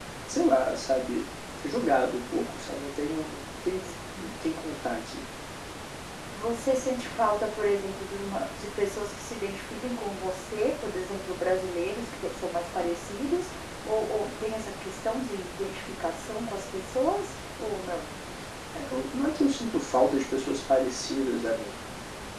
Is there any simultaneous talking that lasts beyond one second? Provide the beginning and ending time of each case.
none

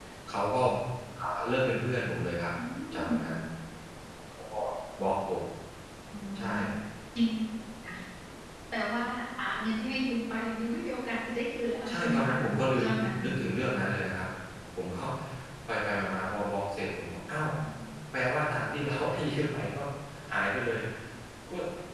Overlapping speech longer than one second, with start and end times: 11.9-13.2

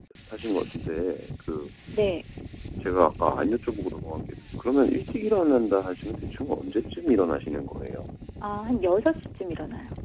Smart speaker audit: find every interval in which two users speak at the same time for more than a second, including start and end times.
none

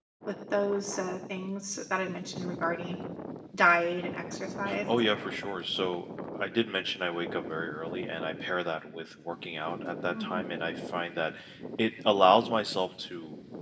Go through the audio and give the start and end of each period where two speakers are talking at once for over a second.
none

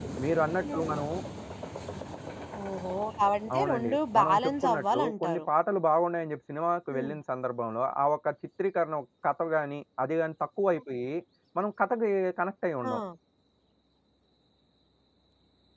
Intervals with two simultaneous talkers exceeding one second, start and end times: 3.6-5.5

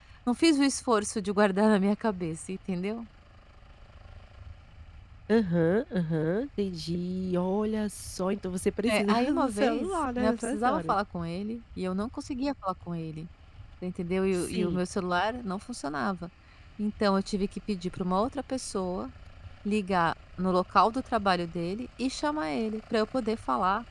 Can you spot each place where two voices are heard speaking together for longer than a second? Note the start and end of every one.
8.9-10.9

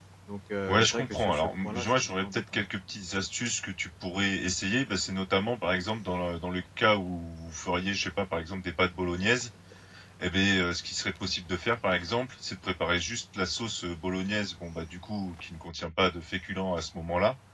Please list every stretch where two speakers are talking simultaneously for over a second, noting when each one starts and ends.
0.7-2.6

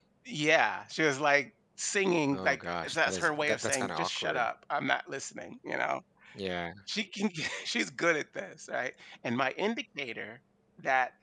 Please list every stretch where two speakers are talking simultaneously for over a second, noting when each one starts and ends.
2.3-4.5

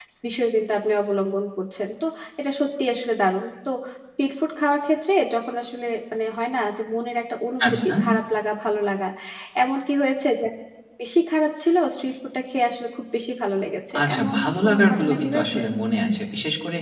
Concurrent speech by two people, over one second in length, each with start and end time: 14.0-15.6

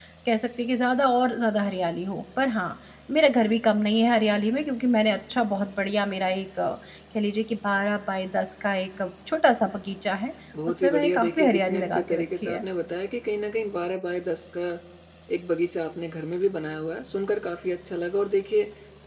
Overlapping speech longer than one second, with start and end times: 10.7-12.6

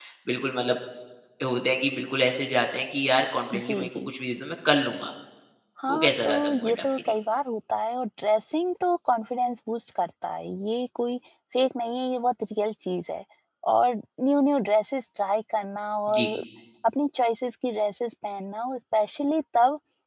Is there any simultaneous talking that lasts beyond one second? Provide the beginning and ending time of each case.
5.9-7.1

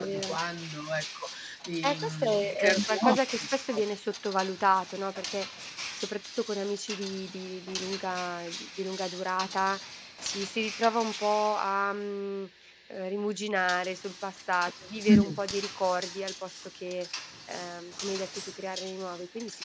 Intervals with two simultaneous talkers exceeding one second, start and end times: 1.8-3.4

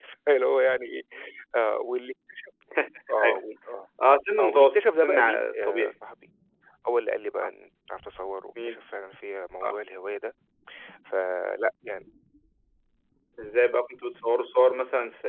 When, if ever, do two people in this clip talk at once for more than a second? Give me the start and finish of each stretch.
4.4-5.9

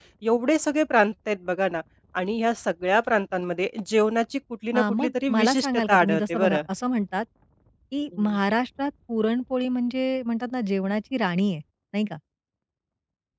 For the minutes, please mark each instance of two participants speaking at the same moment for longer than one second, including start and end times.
4.7-6.6

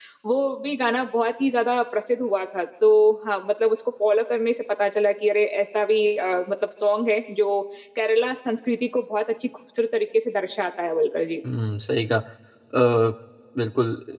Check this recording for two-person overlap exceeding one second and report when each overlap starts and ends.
none

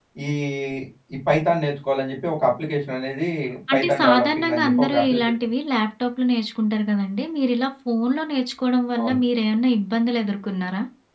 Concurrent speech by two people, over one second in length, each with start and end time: 3.7-5.3

